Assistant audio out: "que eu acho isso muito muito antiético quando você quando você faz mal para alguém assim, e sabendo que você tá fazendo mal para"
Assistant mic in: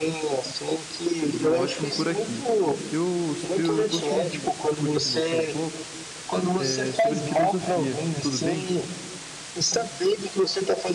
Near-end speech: present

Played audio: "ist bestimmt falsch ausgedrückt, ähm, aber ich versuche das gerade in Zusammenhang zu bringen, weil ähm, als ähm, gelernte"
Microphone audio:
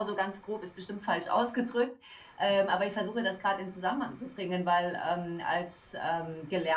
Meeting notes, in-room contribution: none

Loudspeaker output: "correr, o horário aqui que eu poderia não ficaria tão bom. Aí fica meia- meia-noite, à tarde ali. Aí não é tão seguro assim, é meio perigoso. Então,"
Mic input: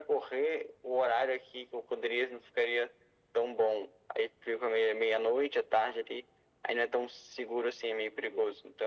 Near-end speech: none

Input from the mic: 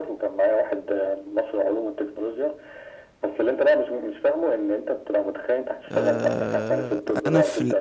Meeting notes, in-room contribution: present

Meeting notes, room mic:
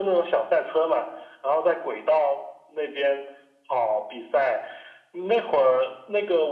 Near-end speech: none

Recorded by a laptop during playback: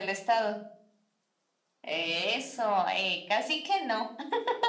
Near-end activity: none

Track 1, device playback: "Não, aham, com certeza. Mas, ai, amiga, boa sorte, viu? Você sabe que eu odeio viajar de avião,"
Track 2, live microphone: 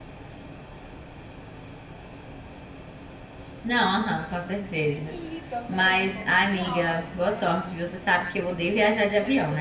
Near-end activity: present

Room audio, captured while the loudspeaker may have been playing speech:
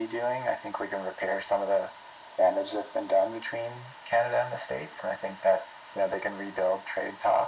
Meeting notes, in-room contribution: none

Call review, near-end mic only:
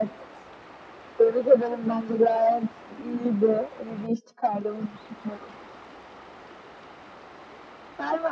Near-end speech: none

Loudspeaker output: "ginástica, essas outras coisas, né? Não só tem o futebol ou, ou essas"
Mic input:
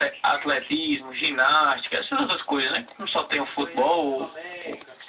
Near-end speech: present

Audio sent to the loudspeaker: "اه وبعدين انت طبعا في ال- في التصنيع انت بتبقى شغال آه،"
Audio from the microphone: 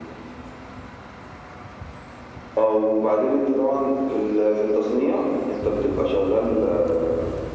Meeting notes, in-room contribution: none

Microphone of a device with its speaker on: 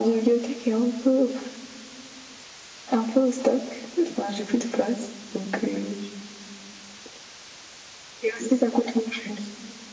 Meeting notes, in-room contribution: none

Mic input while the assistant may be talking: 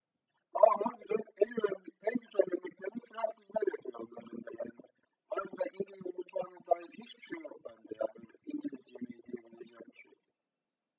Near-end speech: none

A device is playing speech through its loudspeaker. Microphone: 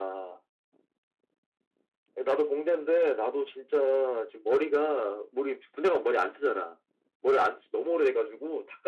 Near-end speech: none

